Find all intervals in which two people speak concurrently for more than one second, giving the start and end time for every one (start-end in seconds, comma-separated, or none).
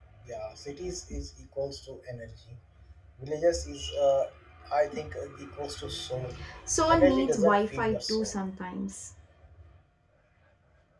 6.9-8.3